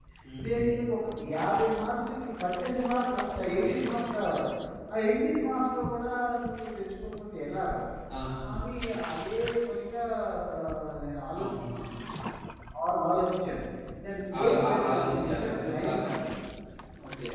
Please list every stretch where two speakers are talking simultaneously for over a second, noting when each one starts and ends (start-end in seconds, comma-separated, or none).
14.4-15.9